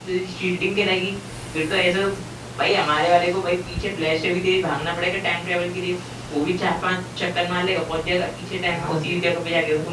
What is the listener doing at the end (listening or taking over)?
taking over